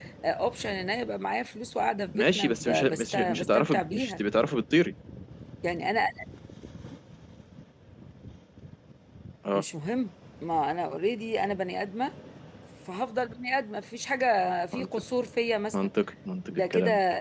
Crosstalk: present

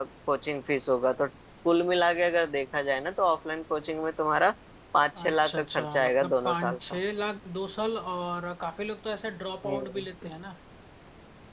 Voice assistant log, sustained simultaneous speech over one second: present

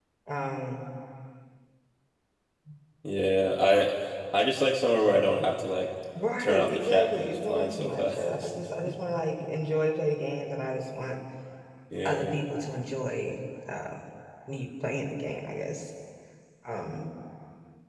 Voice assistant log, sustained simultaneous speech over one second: present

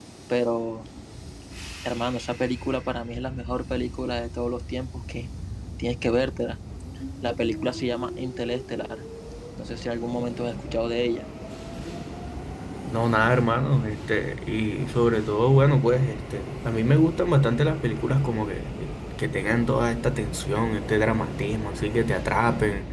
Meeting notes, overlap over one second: none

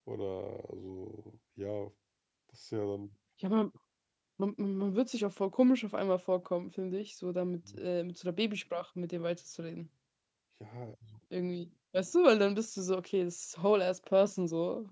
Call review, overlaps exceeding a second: none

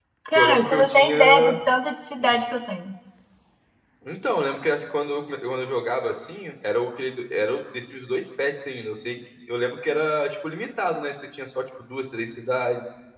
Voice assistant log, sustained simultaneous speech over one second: present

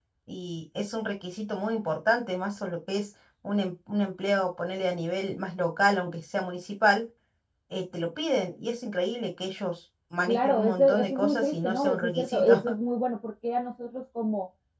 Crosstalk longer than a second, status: present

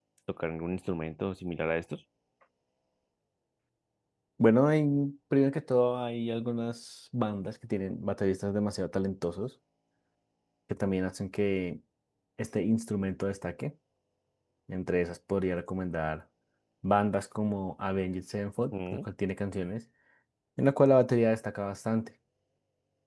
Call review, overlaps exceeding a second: none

